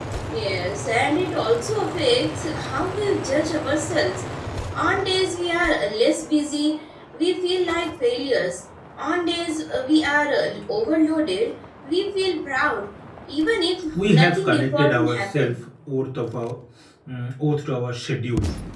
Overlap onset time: 13.9 s

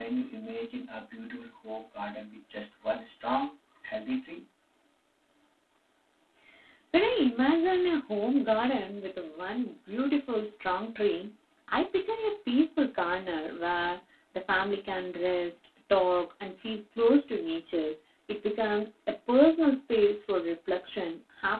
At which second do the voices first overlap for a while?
none

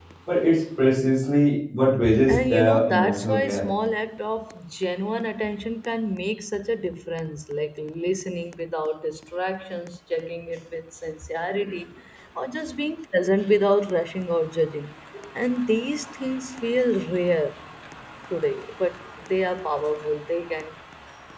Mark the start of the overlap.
2.3 s

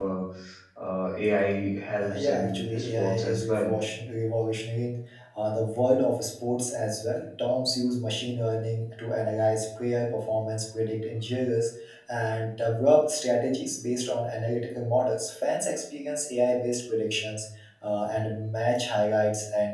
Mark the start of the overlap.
2.0 s

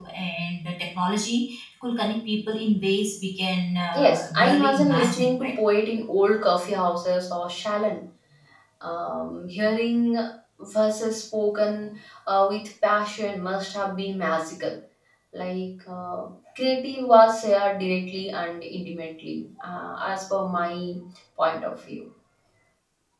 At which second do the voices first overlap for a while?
3.9 s

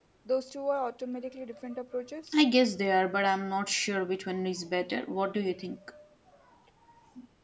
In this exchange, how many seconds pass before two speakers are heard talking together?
none

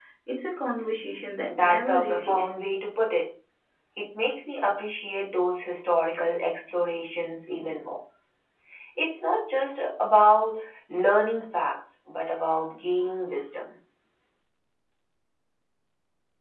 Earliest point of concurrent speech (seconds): 1.5 s

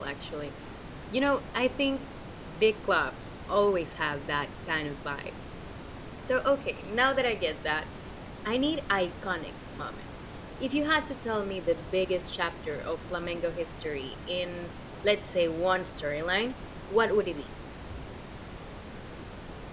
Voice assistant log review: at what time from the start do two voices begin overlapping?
none

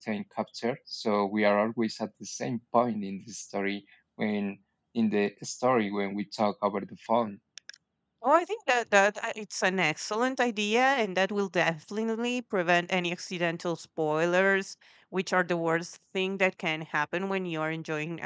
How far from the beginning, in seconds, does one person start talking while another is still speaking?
none

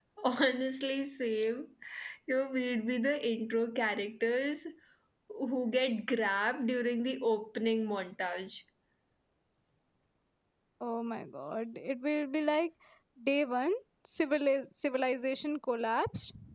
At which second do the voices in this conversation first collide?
none

